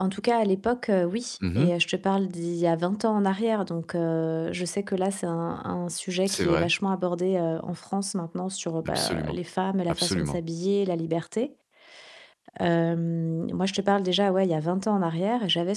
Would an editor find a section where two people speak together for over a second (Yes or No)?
No